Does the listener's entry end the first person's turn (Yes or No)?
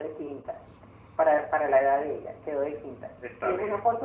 No